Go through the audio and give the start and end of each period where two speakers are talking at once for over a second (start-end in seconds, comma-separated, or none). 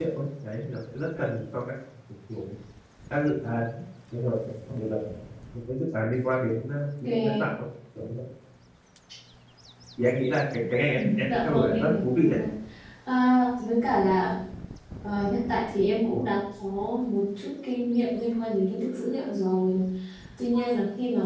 10.9-12.4